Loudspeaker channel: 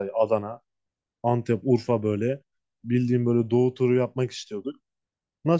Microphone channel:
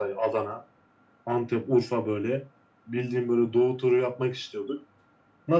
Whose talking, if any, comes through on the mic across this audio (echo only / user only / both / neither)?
echo only